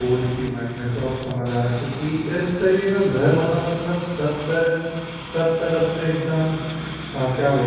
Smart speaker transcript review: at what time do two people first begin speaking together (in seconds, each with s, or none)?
none